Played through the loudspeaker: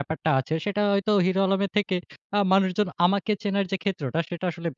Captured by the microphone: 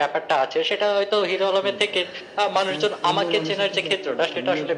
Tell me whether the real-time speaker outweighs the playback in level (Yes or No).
No